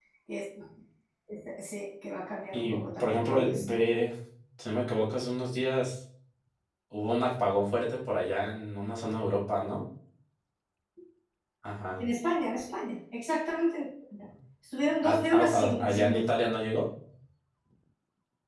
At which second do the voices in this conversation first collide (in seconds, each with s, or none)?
2.5 s